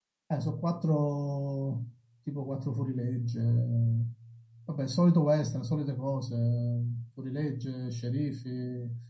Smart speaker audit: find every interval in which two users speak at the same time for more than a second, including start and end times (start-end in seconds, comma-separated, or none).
none